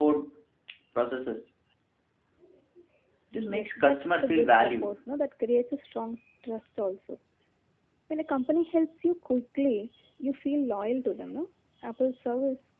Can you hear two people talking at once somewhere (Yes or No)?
Yes